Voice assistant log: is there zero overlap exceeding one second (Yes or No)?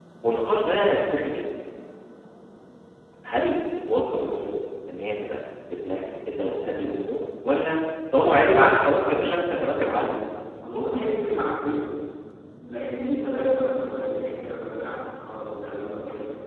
No